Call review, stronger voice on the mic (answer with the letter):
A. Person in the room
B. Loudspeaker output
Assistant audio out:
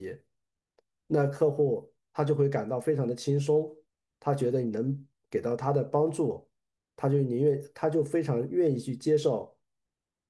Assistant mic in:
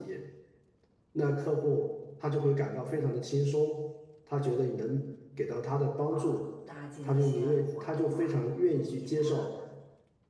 B